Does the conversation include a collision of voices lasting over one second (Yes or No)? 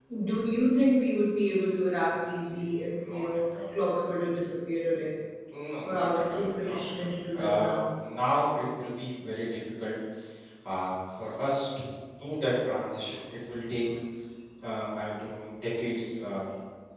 Yes